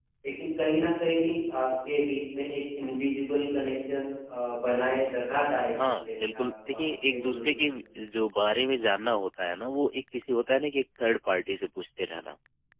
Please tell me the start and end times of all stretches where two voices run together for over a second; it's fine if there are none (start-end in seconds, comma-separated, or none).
6.0-7.7